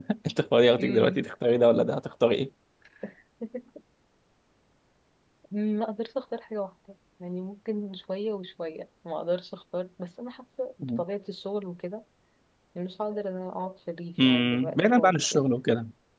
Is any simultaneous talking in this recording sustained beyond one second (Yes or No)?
Yes